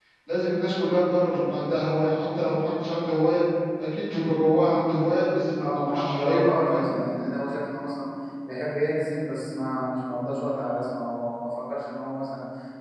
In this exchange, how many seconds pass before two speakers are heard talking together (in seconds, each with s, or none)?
5.6 s